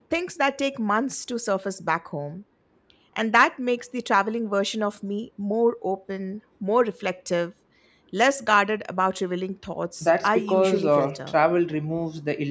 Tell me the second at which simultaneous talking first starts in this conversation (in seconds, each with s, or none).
10.0 s